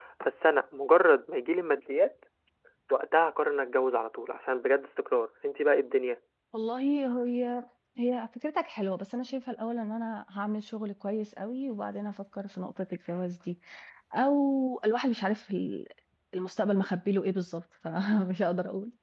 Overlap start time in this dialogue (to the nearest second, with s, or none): none